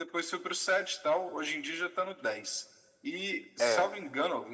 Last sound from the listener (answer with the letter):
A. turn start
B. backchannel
B